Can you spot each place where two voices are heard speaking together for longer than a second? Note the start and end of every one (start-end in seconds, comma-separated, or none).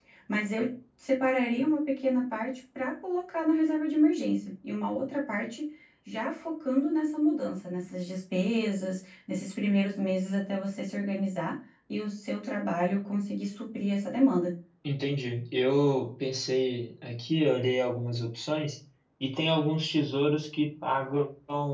none